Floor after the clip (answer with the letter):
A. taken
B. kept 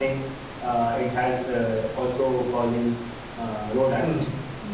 A